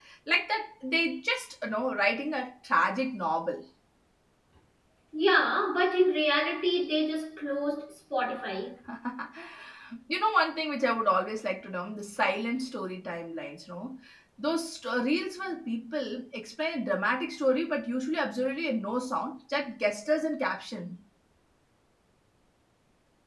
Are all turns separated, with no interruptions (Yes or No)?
Yes